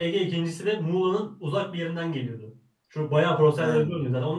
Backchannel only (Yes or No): Yes